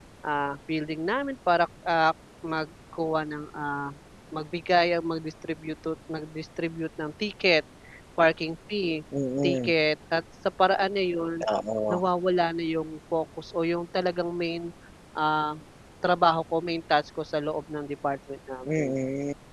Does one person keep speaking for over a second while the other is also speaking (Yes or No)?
No